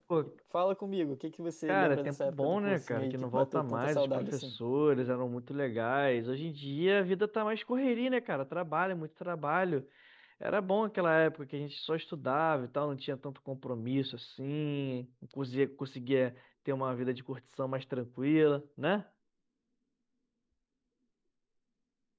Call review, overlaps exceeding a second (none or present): present